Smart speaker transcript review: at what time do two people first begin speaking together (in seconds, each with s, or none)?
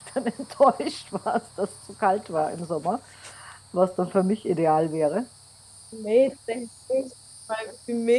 none